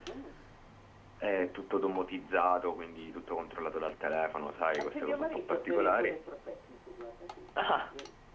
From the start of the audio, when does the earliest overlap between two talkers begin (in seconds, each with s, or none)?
4.8 s